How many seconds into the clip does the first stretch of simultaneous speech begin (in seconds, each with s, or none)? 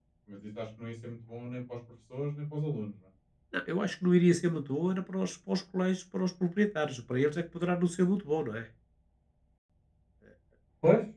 none